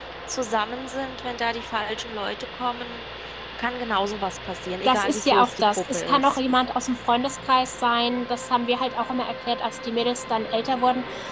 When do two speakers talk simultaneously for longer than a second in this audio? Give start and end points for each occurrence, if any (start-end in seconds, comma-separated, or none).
4.8-6.4